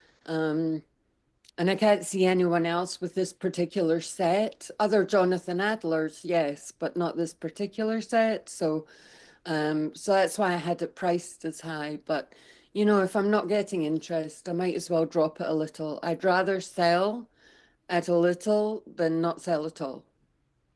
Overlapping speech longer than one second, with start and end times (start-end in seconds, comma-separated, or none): none